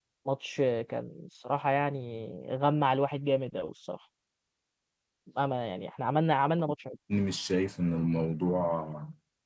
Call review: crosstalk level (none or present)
none